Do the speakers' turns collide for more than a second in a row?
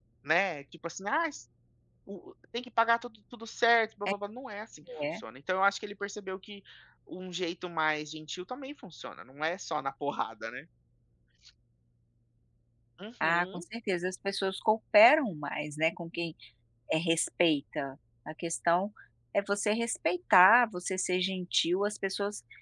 No

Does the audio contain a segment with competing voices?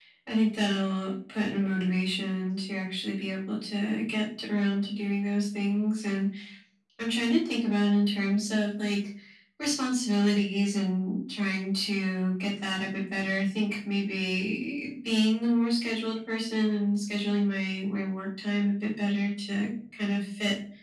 No

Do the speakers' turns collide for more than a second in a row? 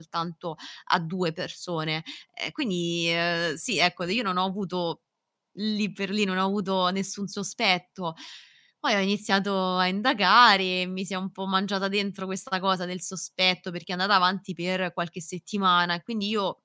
No

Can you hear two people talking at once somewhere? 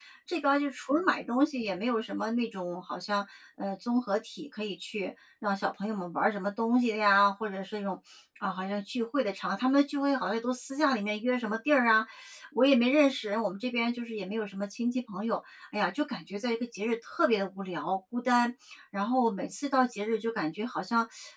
No

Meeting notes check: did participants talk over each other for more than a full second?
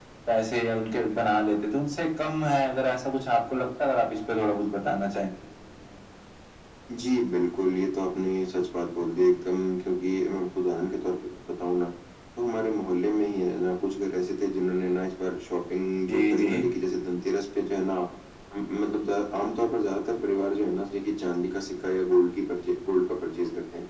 No

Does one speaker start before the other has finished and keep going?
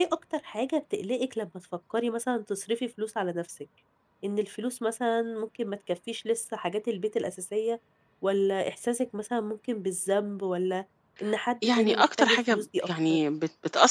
Yes, from 11.6 s

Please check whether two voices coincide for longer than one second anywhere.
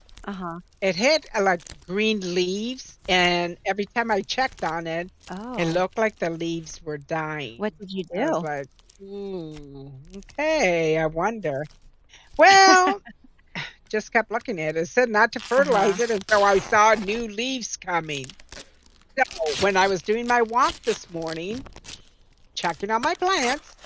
No

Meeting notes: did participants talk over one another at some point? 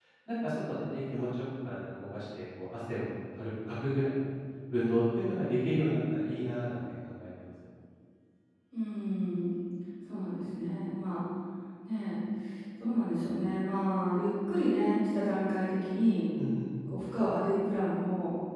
No

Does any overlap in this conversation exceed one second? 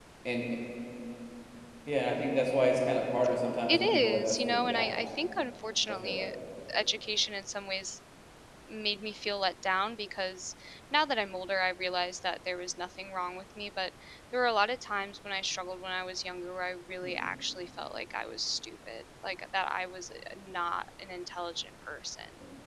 Yes, from 3.7 s

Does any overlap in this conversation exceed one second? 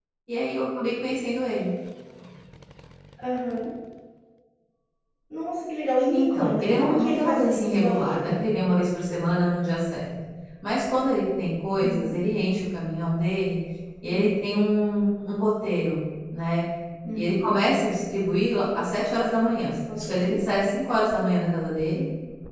Yes, from 6.1 s

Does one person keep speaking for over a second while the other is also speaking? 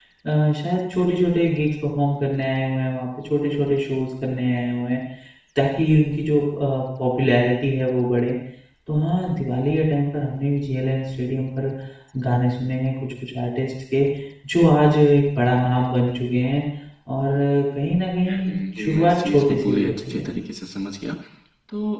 Yes, from 18.3 s

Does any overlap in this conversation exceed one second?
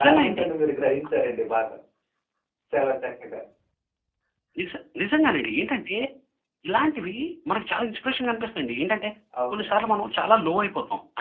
No

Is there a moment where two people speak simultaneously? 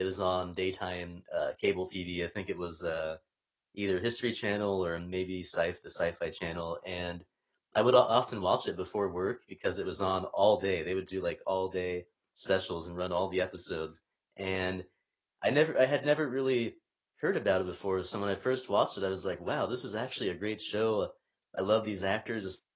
No

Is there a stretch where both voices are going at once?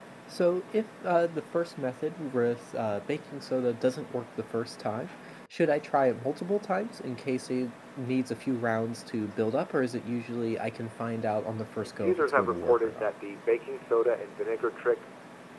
Yes, from 11.8 s

